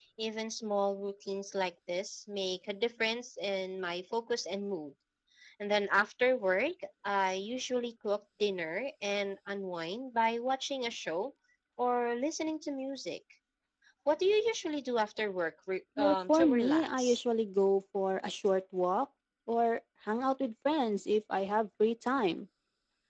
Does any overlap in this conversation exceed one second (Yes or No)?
Yes